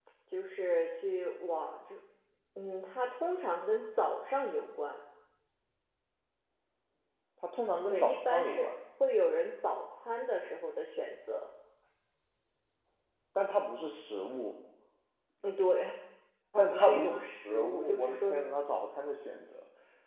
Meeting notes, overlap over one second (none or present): present